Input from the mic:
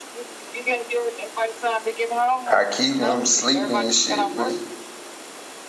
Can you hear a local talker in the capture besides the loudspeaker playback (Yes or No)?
Yes